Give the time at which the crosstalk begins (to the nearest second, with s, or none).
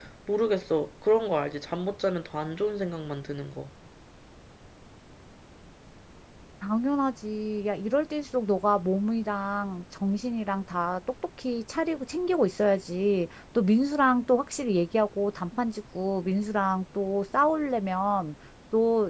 none